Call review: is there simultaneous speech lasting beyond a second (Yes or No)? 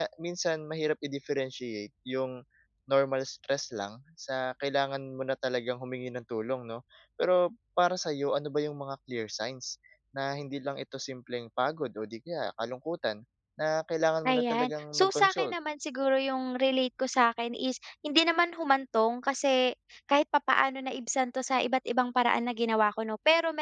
Yes